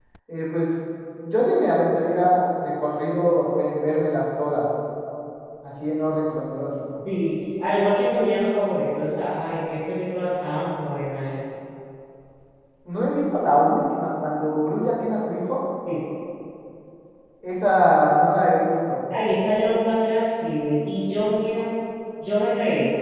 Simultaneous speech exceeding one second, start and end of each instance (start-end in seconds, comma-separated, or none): none